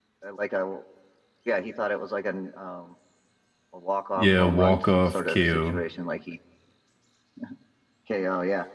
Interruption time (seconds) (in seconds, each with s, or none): 4.2 s